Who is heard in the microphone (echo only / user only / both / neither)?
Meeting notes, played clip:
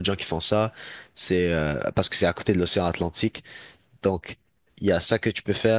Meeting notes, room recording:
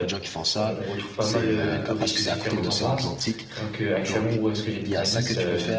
both